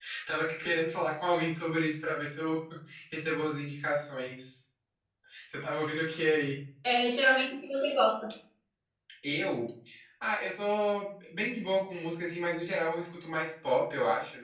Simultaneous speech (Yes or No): No